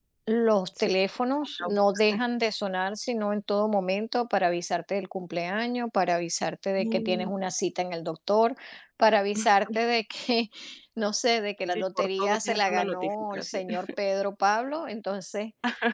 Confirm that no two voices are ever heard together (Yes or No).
No